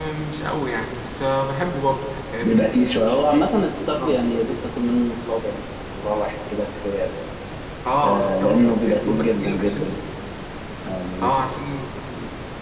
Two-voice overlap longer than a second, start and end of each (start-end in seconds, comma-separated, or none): 8.0-9.9